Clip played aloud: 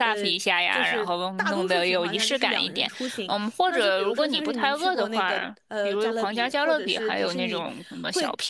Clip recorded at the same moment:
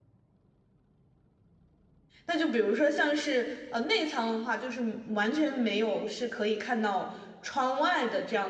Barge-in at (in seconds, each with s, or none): 2.2 s